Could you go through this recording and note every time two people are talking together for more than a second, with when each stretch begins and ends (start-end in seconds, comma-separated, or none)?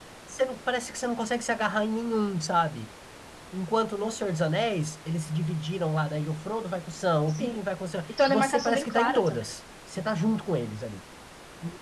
8.1-9.4